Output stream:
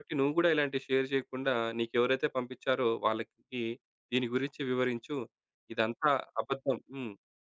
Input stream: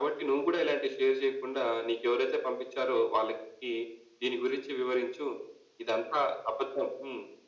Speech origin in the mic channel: echo only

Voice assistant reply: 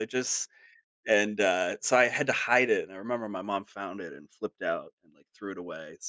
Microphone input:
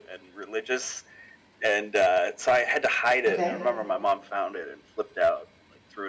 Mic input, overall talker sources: both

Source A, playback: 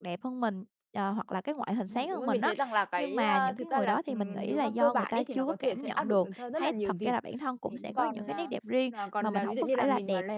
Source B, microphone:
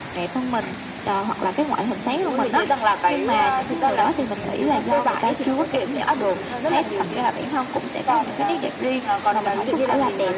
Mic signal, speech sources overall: echo only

